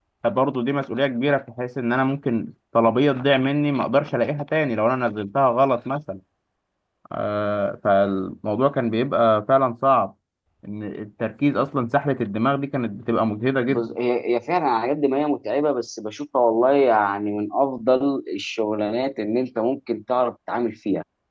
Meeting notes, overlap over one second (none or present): none